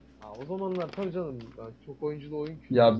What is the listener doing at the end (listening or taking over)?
taking over